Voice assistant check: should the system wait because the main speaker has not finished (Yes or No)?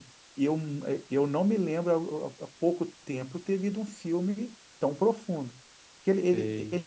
Yes